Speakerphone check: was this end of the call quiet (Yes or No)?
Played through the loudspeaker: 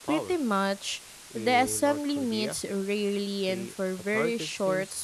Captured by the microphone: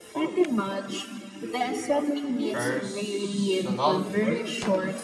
No